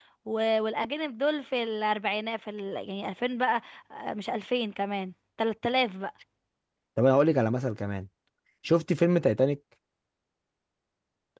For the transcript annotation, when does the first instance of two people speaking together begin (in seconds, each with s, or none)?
none